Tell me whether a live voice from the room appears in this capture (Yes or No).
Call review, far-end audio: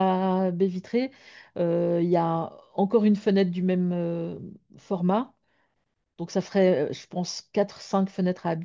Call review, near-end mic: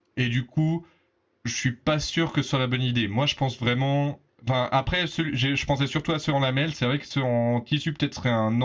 Yes